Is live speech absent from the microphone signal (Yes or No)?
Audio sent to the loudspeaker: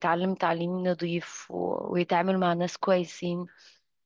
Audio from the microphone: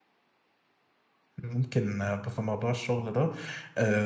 No